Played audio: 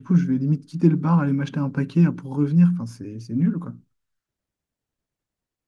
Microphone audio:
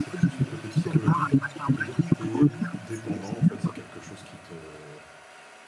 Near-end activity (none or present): present